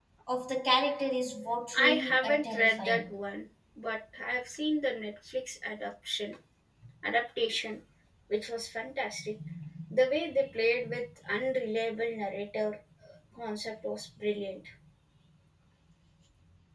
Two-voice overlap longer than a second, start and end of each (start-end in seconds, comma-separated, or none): 1.8-3.1